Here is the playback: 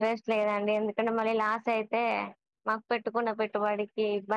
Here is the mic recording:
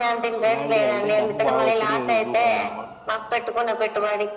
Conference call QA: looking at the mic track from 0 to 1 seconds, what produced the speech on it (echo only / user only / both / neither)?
both